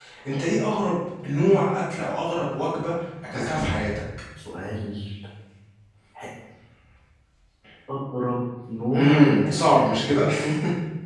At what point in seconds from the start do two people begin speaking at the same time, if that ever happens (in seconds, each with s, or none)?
8.9 s